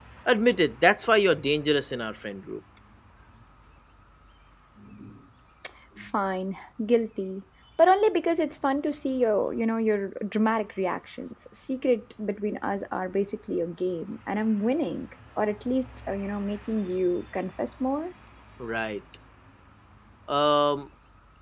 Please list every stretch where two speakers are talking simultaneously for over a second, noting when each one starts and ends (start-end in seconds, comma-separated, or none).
none